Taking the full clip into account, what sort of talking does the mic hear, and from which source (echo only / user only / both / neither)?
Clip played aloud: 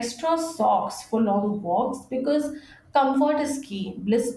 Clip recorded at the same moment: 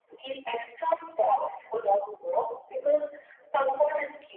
echo only